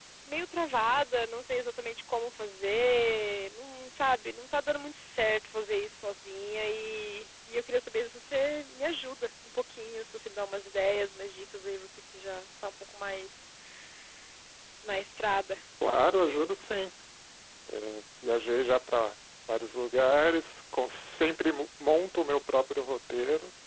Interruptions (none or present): none